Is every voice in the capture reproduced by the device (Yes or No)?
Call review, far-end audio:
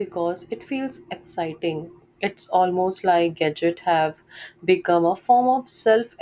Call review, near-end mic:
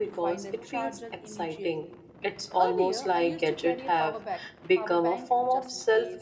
No